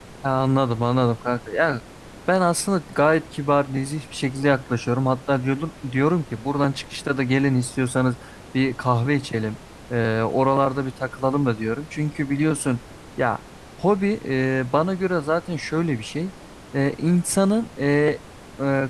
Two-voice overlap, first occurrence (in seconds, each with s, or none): none